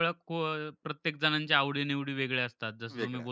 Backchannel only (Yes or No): Yes